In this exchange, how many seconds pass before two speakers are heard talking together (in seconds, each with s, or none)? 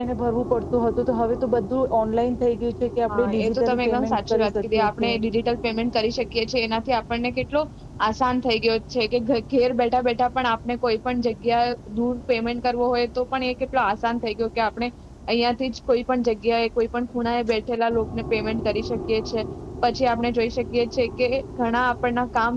3.1 s